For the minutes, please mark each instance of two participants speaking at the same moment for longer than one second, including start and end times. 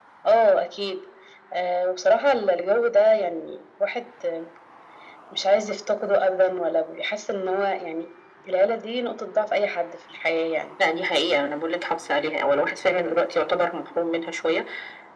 none

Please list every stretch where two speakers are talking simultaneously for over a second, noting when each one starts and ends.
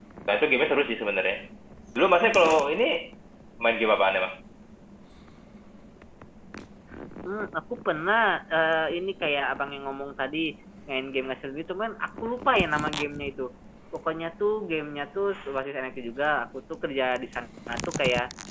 none

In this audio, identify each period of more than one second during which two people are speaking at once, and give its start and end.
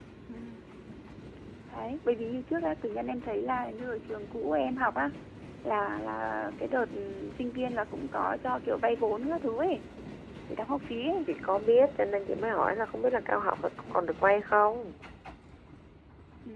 none

